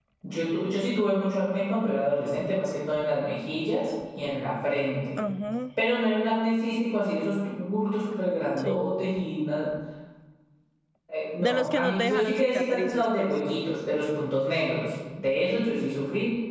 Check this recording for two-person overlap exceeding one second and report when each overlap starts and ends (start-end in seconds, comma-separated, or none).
11.4-13.3